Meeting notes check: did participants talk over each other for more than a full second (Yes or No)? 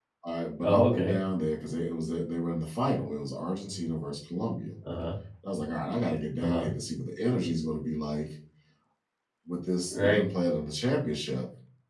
No